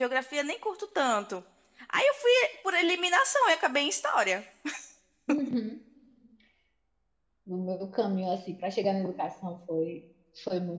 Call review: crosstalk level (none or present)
none